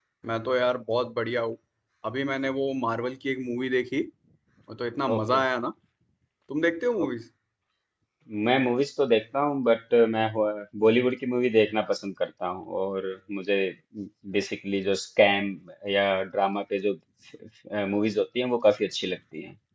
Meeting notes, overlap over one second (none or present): none